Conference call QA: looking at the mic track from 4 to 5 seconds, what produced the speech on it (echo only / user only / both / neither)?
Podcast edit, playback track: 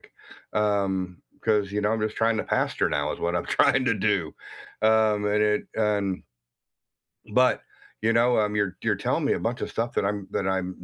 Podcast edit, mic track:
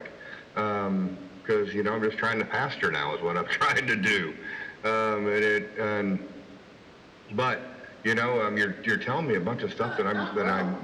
echo only